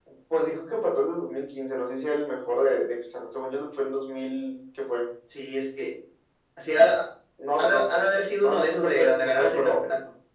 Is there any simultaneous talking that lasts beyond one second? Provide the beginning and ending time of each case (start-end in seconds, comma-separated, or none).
8.4-9.8